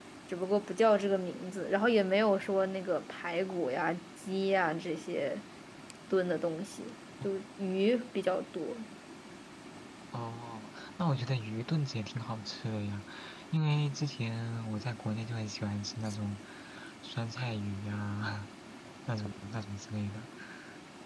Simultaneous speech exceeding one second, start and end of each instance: none

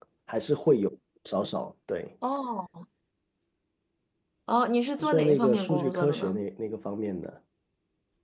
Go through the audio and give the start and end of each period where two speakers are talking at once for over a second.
5.1-6.4

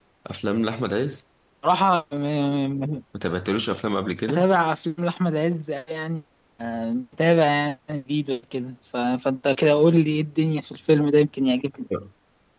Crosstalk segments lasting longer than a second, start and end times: none

